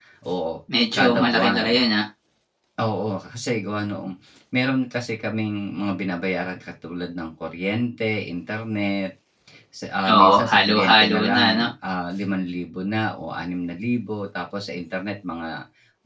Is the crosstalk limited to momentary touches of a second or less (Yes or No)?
No